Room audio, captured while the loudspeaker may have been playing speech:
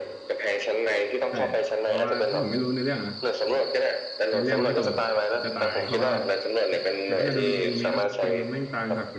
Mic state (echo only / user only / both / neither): both